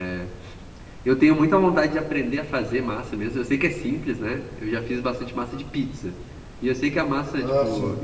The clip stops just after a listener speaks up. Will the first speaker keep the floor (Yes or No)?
Yes